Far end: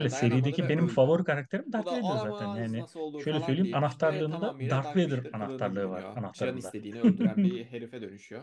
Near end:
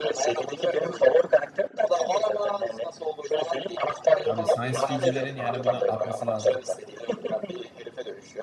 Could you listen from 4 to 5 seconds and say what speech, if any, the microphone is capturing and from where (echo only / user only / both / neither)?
both